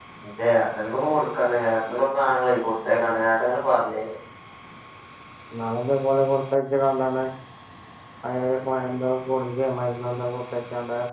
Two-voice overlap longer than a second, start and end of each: none

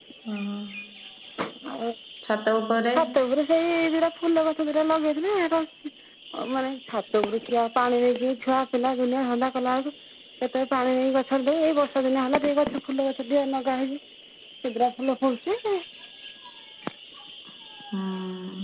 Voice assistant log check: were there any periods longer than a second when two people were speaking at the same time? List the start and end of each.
none

